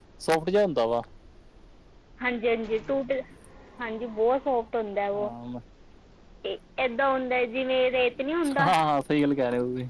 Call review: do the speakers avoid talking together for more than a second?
Yes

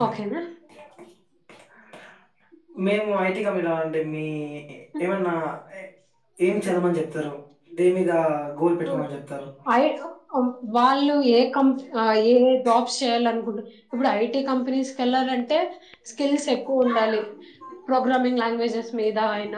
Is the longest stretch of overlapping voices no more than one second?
Yes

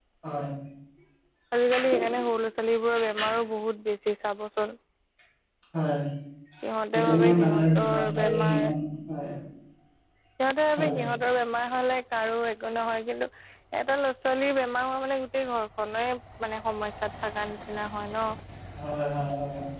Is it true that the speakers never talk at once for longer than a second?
No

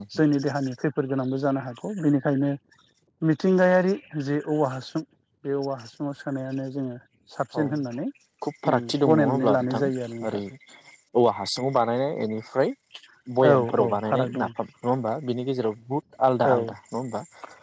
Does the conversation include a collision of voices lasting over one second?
Yes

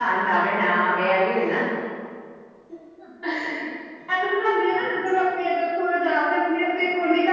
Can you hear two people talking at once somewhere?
No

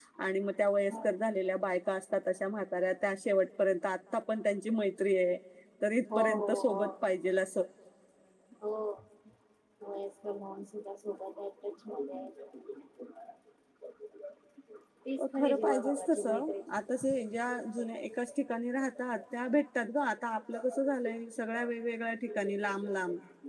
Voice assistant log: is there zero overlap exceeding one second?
No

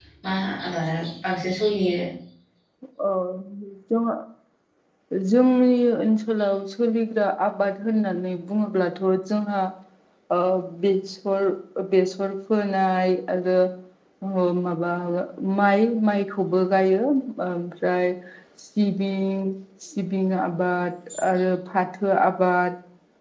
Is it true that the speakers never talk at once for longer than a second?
Yes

